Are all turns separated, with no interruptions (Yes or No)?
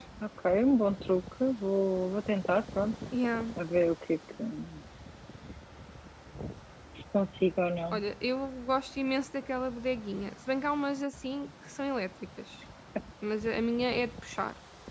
Yes